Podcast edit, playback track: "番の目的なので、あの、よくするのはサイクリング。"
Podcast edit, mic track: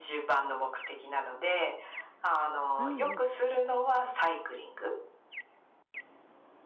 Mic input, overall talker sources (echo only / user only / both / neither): both